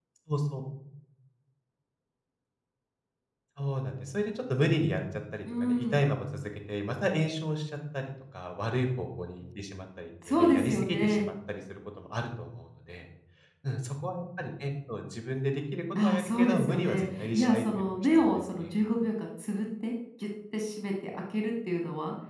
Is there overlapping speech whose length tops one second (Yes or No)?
Yes